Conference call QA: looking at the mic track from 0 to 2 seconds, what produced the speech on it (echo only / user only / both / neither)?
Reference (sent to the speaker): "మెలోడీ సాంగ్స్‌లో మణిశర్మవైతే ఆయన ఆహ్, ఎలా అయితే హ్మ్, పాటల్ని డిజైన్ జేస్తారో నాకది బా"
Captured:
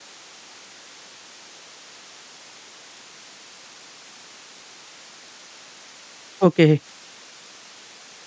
neither